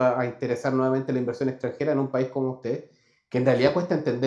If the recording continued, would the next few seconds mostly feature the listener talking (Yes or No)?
No